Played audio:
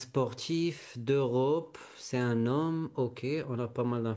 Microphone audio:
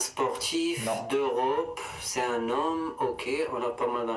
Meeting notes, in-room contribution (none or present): present